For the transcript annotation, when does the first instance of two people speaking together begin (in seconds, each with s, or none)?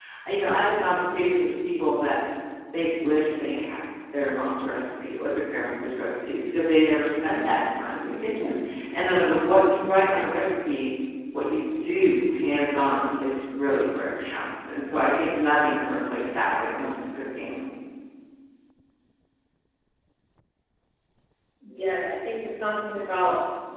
none